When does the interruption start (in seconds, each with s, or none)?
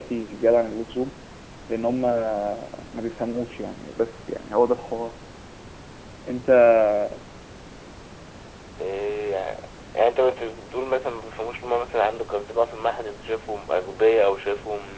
none